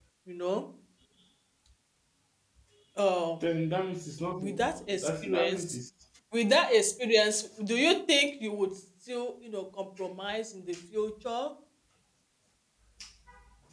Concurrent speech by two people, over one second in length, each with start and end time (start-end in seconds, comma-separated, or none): 4.4-5.8